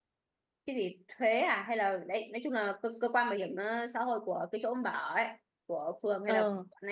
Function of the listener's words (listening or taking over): listening